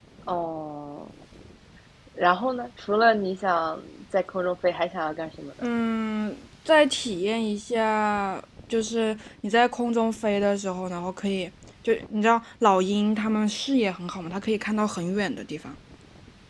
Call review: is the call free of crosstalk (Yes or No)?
Yes